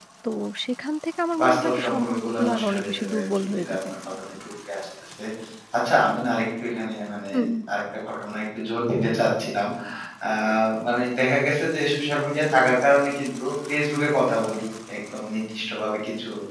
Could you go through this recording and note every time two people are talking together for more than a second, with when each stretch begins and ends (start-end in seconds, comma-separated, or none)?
1.4-3.8